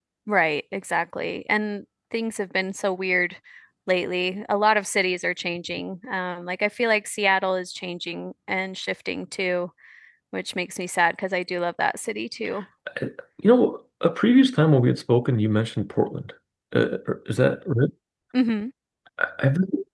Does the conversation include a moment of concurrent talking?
No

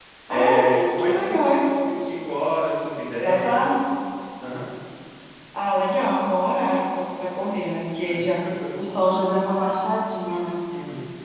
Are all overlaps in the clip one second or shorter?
No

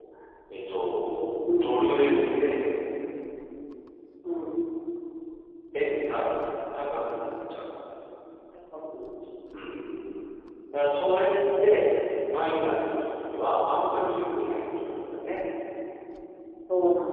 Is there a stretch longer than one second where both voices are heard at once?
No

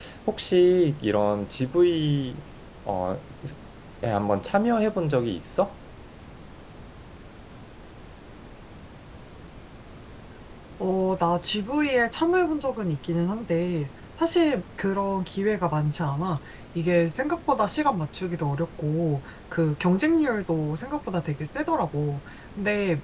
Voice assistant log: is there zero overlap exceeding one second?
Yes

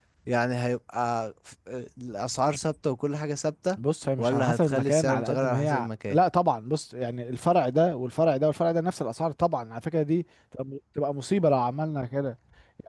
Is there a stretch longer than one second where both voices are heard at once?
Yes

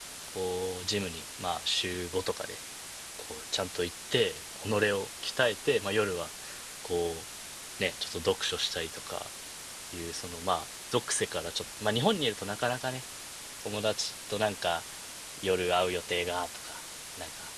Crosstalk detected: No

